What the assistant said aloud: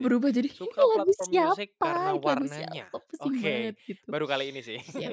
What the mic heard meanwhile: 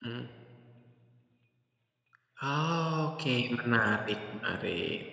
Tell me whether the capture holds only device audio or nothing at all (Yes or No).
No